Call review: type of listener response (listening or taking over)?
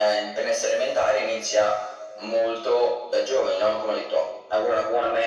listening